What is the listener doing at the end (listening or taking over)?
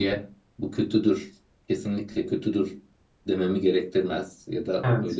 listening